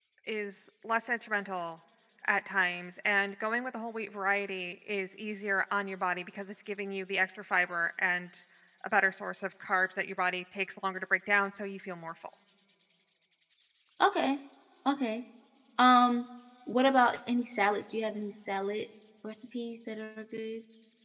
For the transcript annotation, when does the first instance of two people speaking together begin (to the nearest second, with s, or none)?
none